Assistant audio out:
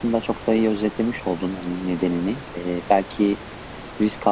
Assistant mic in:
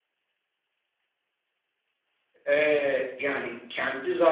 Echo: none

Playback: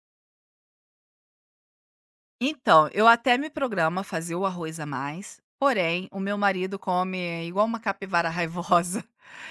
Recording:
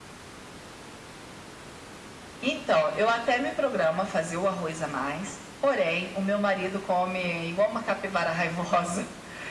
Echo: present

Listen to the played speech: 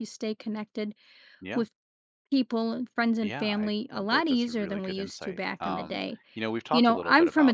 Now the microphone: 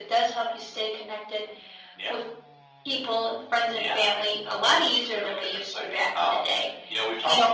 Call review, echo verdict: present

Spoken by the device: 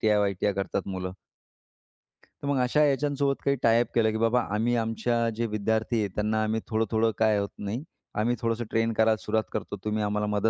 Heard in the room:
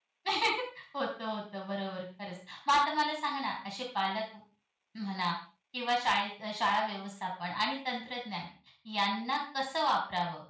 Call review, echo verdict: none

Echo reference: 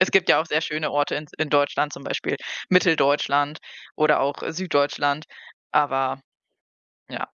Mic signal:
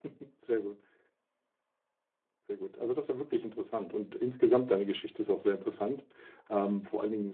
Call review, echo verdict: none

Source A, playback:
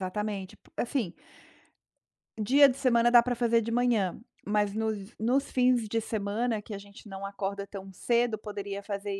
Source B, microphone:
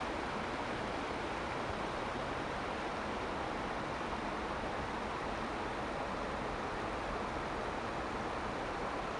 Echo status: none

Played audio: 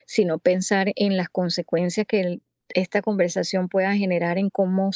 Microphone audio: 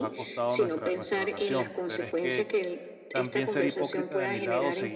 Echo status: present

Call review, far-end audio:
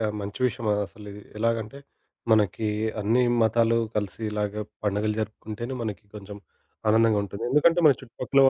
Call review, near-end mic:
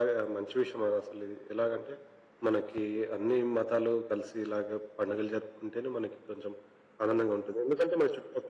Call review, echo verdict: present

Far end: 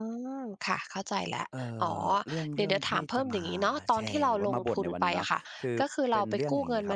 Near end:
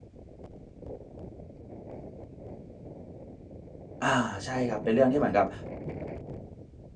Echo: none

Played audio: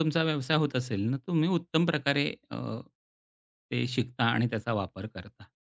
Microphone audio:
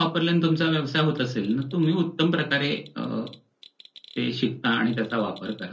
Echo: present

